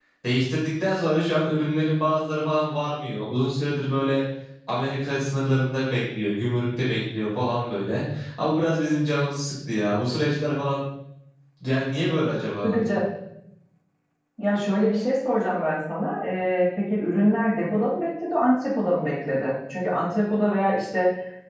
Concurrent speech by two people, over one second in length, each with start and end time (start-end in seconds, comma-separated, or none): none